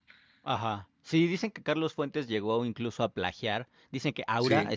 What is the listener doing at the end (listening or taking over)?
listening